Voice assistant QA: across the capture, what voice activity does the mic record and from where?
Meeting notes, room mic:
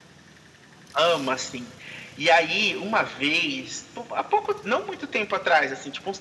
echo only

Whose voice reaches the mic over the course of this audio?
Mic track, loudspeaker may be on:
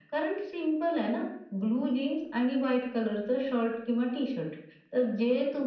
echo only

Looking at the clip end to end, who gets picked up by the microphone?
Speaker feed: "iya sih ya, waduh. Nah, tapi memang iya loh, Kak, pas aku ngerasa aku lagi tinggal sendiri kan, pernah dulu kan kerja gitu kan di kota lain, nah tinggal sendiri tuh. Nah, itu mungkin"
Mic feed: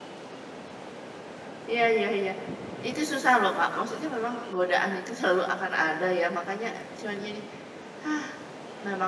user only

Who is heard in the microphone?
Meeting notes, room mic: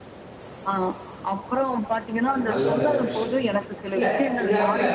both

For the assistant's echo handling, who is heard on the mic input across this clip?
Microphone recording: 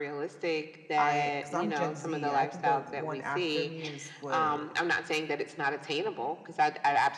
both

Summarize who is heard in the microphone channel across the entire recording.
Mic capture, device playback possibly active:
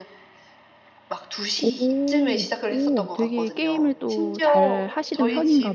both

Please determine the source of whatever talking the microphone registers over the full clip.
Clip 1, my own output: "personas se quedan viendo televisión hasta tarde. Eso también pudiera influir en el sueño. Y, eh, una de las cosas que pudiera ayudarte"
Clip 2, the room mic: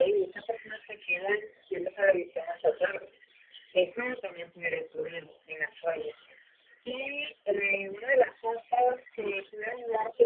echo only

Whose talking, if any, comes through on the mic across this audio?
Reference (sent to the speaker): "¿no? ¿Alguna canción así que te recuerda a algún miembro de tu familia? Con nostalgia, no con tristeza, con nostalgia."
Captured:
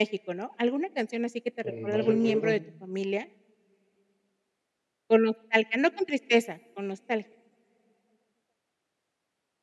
both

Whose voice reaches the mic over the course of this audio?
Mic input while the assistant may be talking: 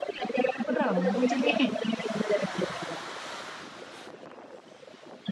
both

